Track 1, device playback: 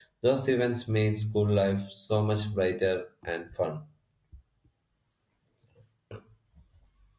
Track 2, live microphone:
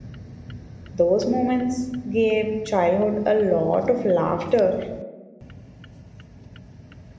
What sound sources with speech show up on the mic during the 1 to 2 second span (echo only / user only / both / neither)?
user only